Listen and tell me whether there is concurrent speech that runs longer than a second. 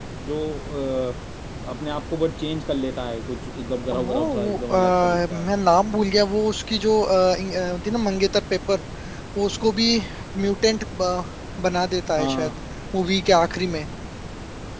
Yes, from 3.9 s

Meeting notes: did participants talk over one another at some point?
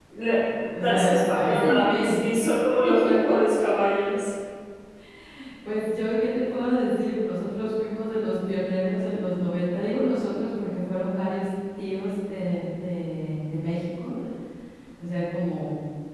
Yes, from 0.8 s

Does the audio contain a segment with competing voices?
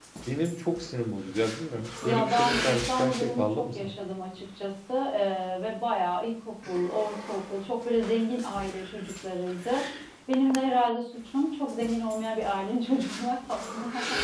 Yes, from 2.0 s

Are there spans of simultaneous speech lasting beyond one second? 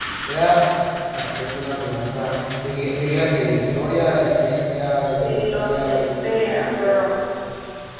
Yes, from 5.2 s

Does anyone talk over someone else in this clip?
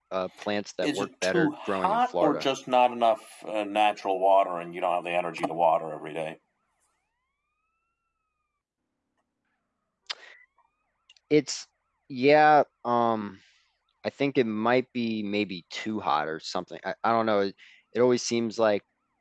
Yes, from 0.8 s

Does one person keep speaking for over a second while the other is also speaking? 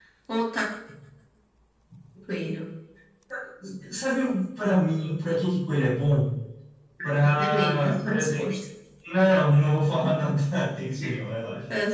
Yes, from 7.2 s

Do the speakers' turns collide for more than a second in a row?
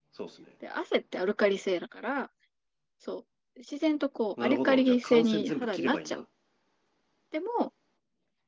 Yes, from 4.4 s

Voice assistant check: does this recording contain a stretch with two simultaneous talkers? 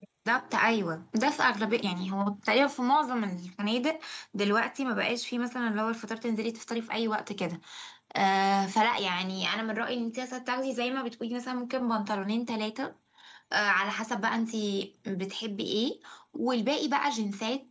No

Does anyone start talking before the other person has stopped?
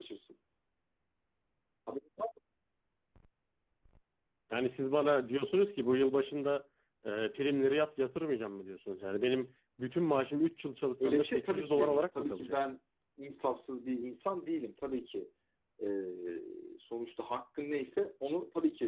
Yes, from 11.0 s

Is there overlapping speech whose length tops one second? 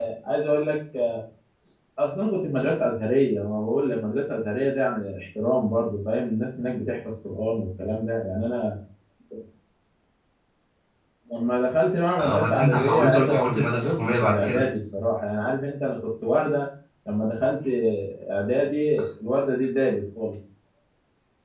Yes, from 12.2 s

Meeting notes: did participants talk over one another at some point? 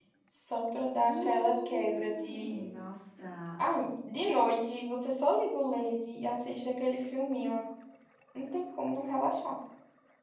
Yes, from 1.0 s

